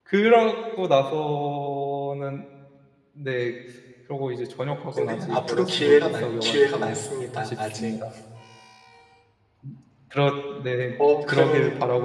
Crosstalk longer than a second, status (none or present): present